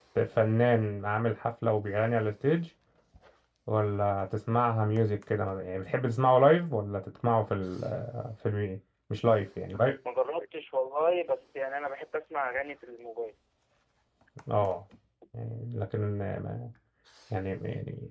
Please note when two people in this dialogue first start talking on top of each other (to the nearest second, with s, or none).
none